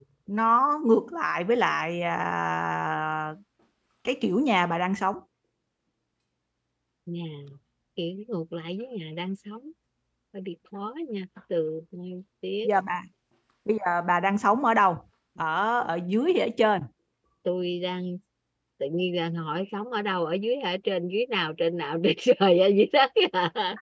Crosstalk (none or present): none